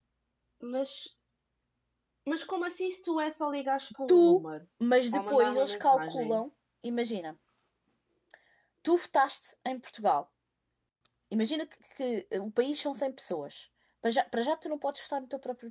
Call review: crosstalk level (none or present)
present